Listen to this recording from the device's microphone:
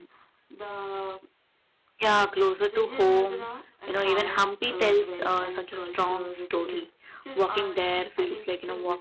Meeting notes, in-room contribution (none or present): present